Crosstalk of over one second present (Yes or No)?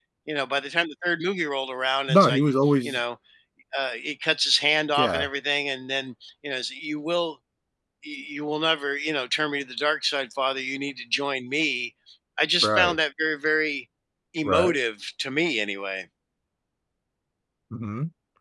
No